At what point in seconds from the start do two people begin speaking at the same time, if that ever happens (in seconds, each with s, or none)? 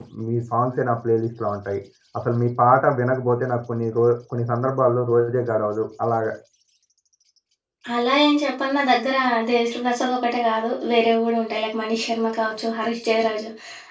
none